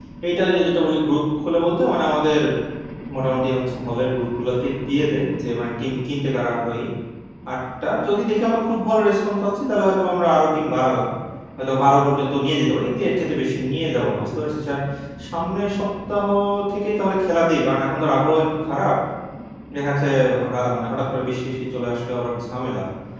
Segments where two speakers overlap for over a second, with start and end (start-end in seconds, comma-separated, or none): none